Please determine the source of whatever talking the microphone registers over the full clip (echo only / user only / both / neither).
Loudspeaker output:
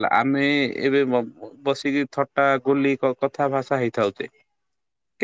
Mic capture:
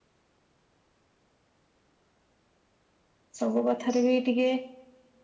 user only